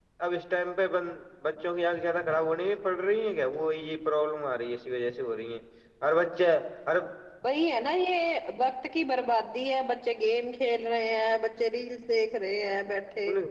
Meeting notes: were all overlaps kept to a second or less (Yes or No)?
Yes